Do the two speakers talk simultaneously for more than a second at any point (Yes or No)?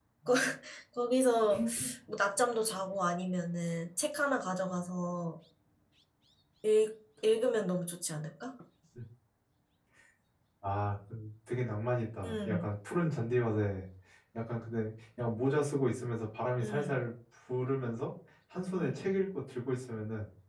No